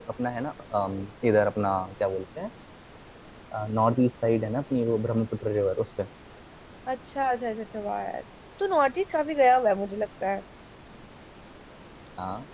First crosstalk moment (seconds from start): none

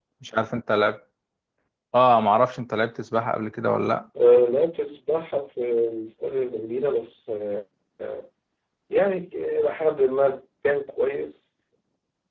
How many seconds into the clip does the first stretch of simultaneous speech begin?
none

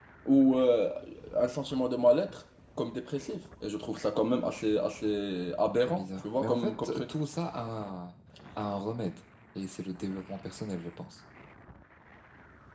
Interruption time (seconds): 5.8 s

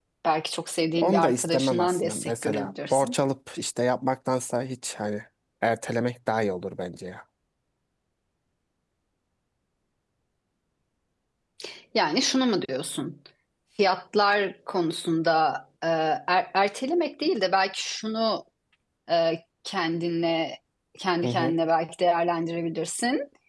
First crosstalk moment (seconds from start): 1.0 s

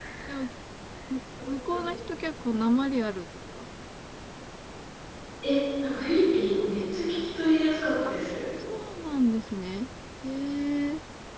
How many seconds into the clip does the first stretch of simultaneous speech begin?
none

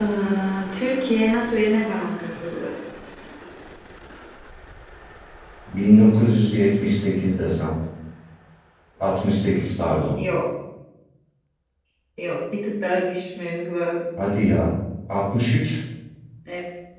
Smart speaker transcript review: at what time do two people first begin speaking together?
none

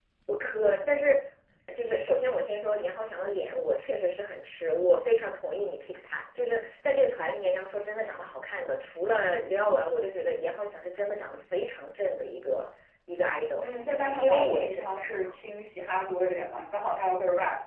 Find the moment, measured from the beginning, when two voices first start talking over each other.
14.0 s

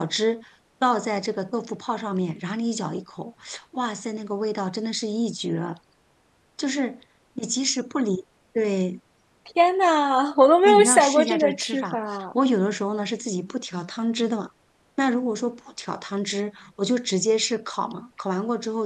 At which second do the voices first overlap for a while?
10.6 s

